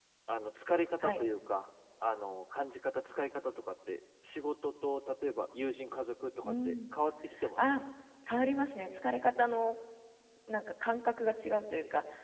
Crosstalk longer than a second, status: none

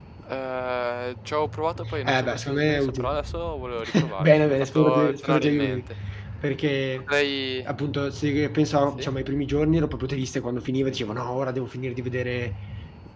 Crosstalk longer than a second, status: present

